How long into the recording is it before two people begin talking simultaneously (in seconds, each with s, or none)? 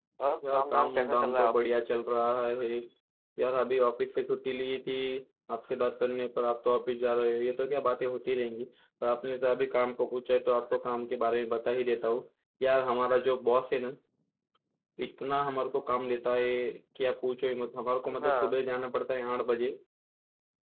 0.5 s